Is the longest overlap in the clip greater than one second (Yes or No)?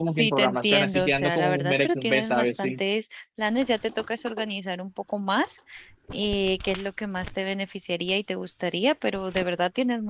Yes